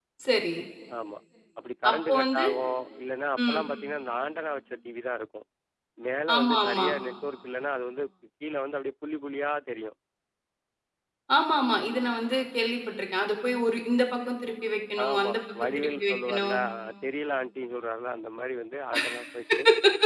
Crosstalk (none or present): present